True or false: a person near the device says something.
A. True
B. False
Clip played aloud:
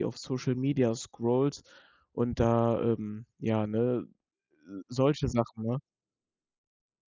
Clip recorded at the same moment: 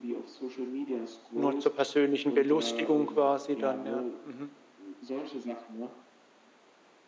A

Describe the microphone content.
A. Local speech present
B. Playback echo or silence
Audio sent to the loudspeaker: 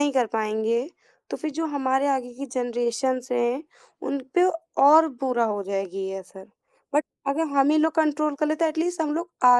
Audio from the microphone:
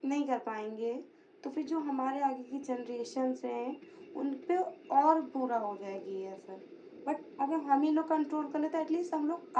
B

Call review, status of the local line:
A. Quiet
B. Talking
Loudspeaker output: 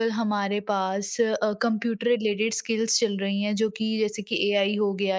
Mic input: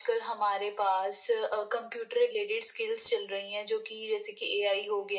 A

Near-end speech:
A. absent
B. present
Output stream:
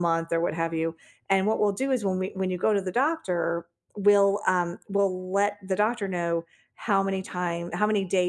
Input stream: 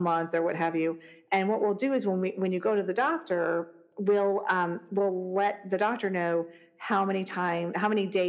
A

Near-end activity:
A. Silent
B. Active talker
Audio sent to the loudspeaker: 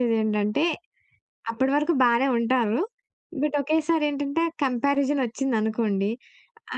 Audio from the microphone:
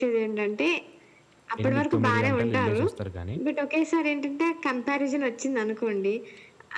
B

